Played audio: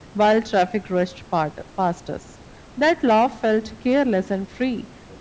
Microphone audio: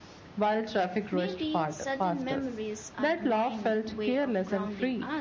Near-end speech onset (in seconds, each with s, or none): 1.1 s